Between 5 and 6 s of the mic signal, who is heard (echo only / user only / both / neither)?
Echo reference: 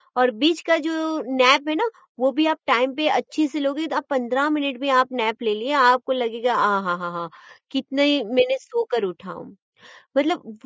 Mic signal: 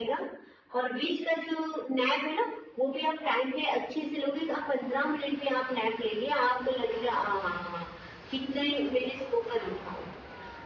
echo only